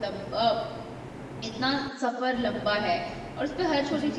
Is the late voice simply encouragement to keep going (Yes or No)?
Yes